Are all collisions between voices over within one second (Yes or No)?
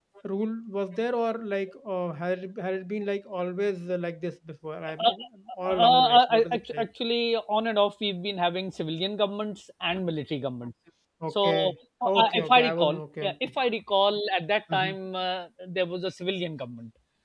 No